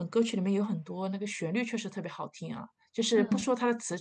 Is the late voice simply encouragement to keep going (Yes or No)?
Yes